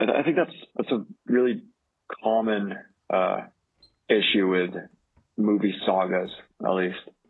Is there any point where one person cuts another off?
No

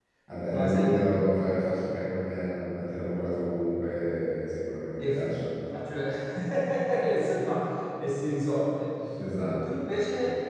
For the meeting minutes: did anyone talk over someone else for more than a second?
No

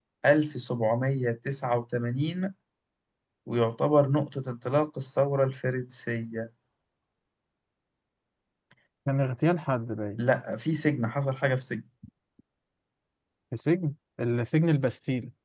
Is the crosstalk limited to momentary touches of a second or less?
Yes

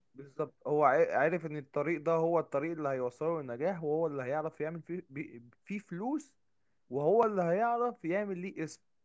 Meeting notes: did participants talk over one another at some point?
No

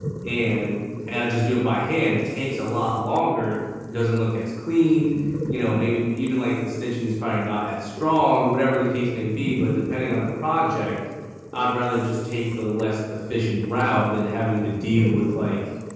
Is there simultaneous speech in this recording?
No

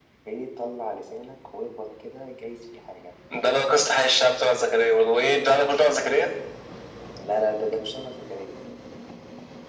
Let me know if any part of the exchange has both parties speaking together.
No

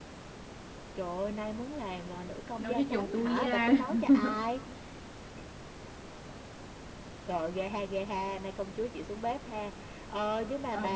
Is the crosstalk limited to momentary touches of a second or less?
No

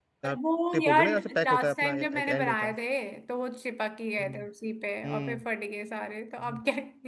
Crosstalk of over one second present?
Yes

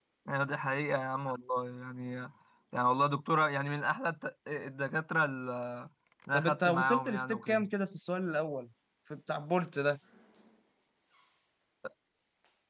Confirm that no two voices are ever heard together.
No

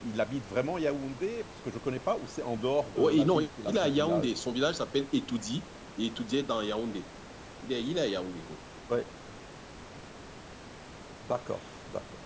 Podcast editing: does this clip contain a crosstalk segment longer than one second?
Yes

